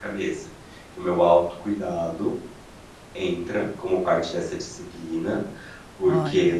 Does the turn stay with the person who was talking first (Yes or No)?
Yes